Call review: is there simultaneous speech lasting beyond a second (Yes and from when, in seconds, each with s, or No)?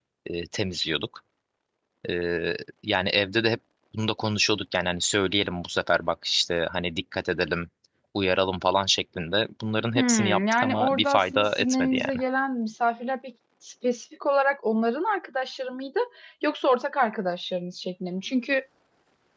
Yes, from 9.9 s